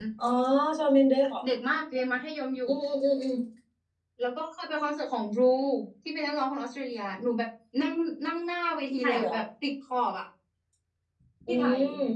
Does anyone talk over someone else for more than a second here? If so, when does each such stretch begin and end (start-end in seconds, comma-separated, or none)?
none